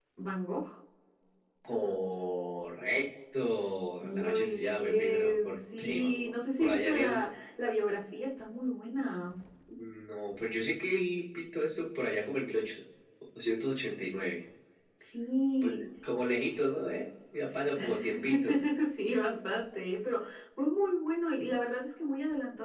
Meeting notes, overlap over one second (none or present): present